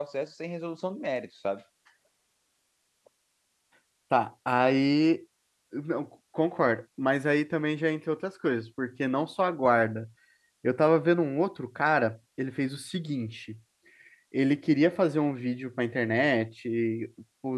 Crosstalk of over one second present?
No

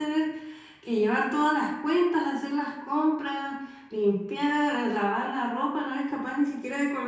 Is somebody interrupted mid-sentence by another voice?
No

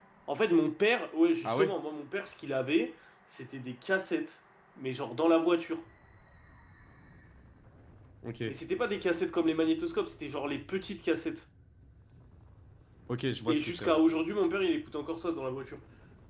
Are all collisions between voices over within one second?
Yes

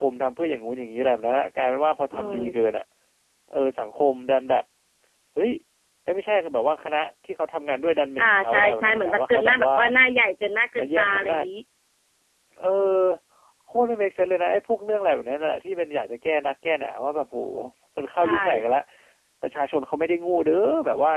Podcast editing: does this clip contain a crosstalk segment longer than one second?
Yes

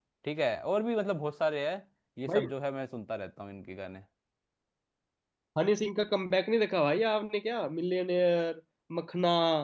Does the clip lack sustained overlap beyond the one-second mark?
Yes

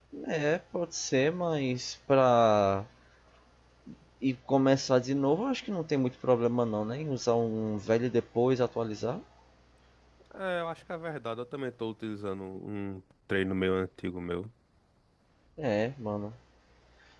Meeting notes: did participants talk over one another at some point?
No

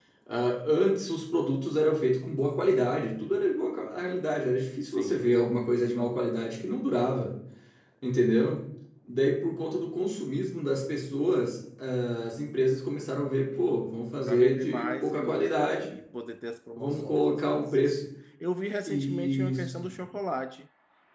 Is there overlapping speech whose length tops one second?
Yes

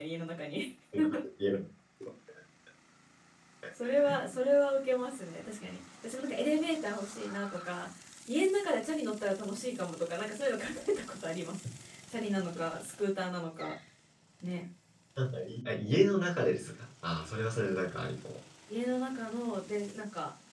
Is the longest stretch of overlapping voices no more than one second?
Yes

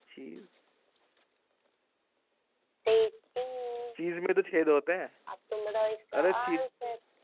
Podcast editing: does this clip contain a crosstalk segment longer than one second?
No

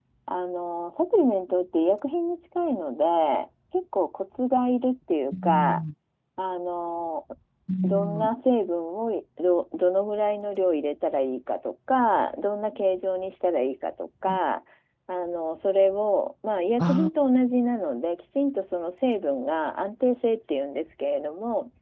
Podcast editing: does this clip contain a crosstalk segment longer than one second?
No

